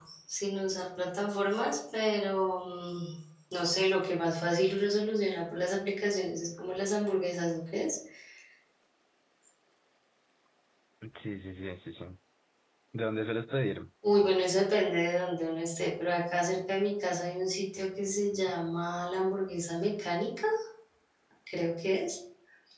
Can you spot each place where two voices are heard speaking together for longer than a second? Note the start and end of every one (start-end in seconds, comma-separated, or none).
none